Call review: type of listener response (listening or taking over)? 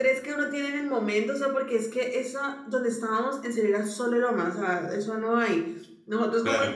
listening